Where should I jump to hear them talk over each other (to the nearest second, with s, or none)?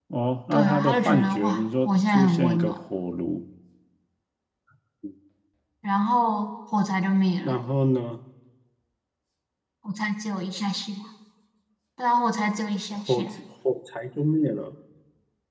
1 s